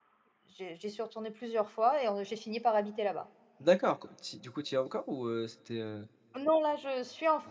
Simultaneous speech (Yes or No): No